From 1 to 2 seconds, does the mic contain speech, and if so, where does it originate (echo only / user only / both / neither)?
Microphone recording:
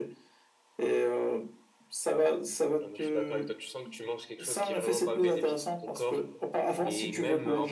echo only